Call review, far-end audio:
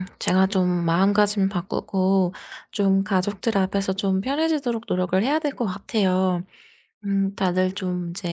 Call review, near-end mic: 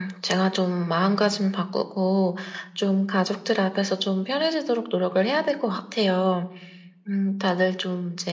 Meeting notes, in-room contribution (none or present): none